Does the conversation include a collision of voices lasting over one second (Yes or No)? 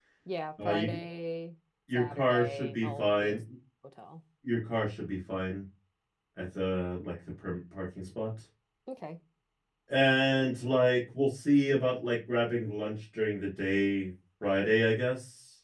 Yes